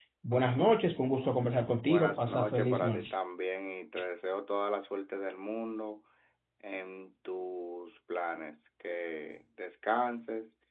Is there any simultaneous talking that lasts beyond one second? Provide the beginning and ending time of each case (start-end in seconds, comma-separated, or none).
1.9-3.1